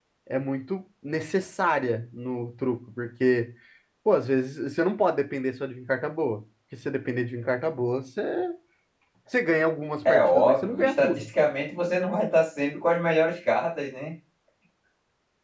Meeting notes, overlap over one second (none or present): present